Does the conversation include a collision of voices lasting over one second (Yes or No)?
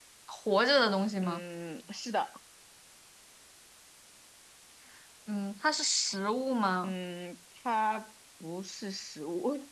No